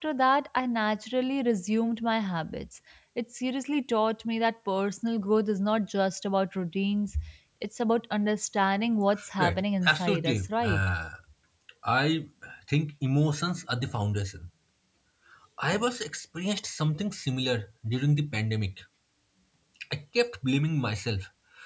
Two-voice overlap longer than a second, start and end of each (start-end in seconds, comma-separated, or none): 9.4-10.9